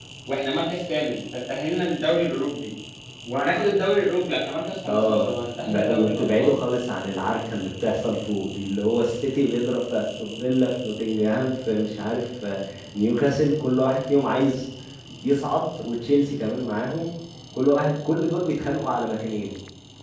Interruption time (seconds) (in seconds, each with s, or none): 4.8 s